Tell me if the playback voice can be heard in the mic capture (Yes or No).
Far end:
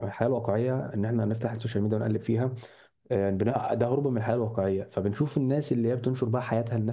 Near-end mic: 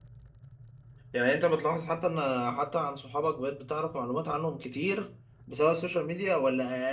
No